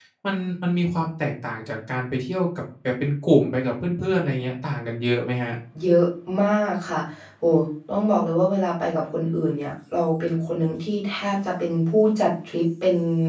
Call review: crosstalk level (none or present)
none